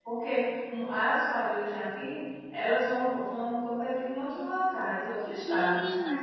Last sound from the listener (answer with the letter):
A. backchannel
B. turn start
B